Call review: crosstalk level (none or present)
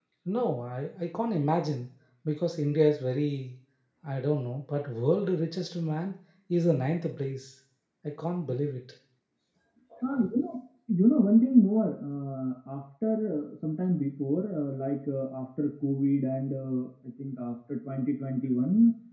none